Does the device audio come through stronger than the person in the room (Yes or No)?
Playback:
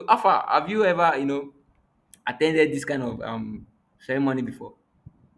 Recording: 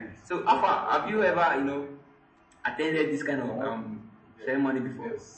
Yes